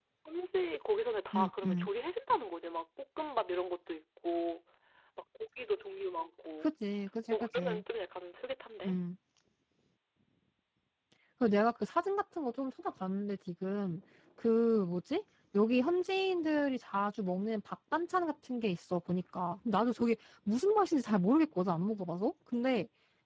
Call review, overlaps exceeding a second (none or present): none